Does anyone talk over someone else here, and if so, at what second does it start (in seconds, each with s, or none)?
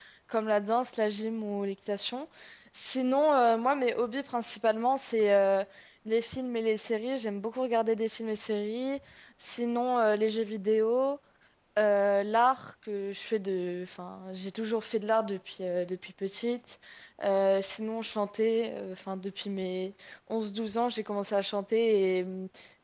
none